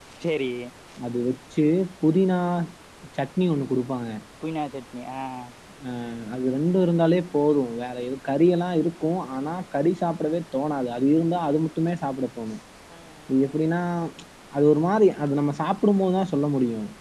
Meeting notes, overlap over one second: none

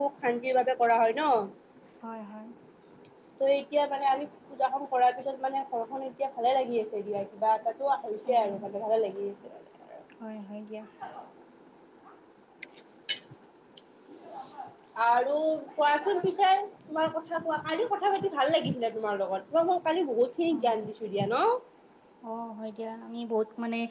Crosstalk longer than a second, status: none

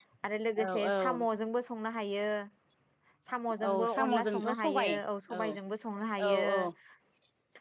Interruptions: present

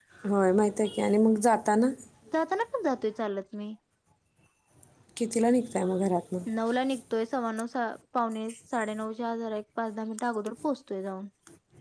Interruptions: none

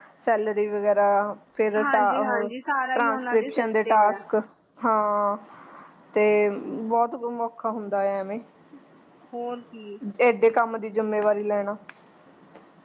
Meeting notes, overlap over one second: present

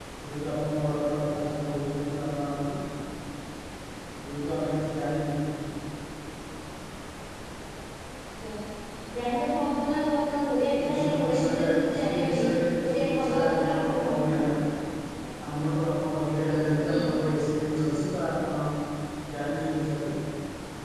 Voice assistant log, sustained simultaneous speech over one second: present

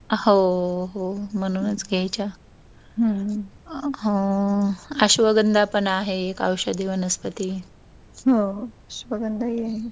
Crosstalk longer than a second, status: none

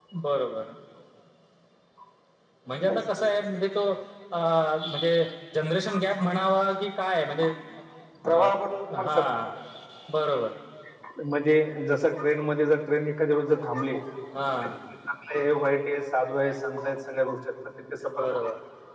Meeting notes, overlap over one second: none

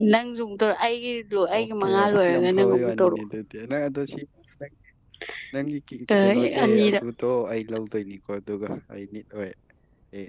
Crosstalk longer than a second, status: present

